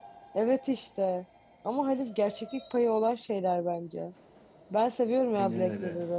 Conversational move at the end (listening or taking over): listening